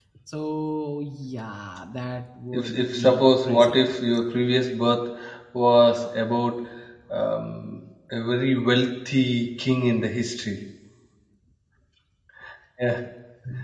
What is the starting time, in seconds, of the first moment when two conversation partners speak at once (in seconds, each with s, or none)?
2.5 s